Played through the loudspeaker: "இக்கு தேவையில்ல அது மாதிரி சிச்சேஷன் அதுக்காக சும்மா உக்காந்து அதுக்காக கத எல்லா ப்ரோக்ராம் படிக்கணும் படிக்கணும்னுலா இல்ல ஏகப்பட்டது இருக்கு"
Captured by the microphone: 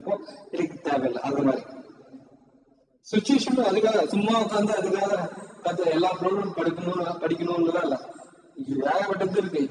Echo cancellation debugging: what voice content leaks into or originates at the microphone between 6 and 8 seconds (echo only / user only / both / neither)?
echo only